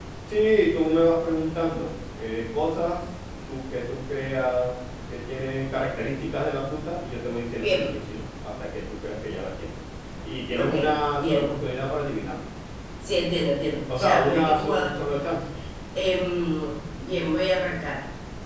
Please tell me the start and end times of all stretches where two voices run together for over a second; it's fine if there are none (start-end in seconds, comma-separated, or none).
13.9-15.3